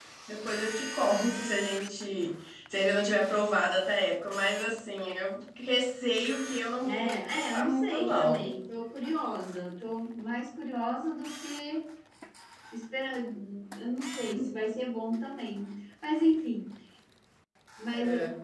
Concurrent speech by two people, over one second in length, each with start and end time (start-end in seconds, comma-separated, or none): 6.8-8.4